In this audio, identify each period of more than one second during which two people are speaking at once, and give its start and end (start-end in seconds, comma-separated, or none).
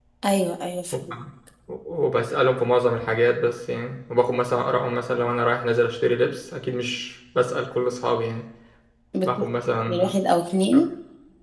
none